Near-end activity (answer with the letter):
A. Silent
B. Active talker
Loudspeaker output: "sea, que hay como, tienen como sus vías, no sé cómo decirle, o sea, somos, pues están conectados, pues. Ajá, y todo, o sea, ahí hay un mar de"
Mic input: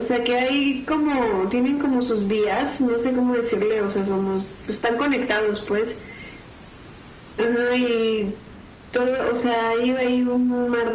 A